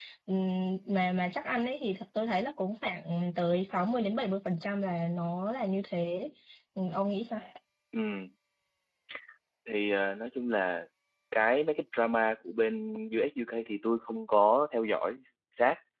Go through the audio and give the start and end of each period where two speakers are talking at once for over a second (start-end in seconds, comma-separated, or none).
none